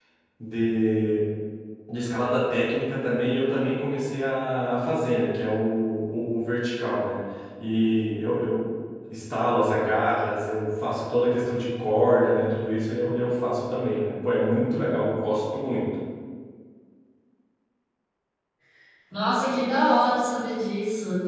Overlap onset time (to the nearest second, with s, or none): none